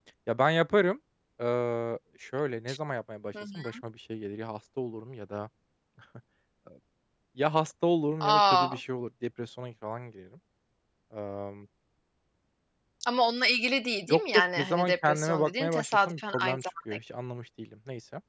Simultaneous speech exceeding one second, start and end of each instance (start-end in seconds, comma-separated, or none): 14.1-17.0